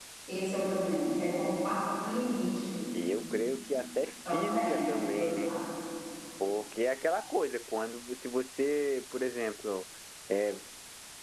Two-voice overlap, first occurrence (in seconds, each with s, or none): 4.2 s